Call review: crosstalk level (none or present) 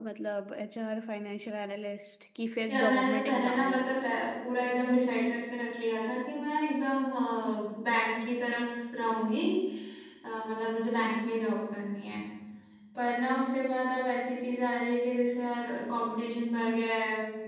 present